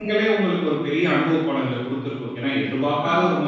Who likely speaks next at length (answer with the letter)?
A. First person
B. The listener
A